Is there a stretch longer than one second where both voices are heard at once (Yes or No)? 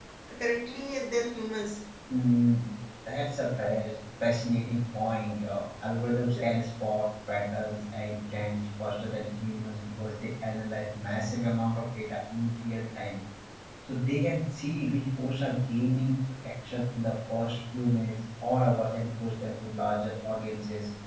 No